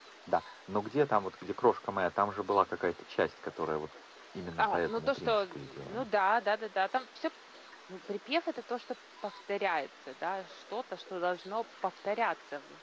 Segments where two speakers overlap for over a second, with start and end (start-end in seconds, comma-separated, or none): 4.6-6.0